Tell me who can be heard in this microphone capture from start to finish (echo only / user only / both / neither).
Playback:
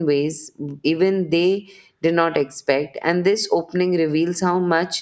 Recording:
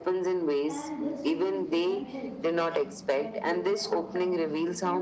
both